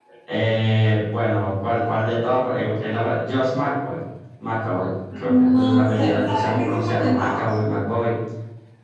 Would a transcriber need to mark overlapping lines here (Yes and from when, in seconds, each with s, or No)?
Yes, from 5.1 s